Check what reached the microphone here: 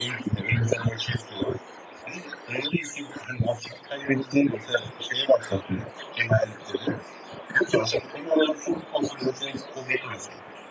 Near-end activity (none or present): none